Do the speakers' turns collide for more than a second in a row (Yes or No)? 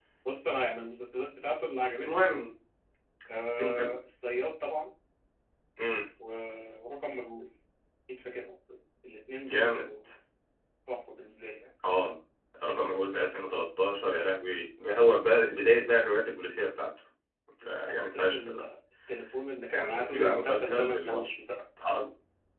Yes